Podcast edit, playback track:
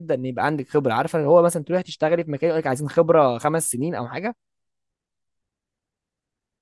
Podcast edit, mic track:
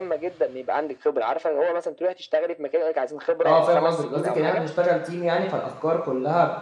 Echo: present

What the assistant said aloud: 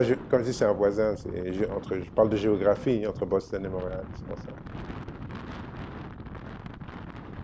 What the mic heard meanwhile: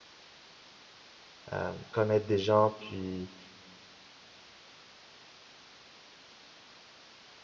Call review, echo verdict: none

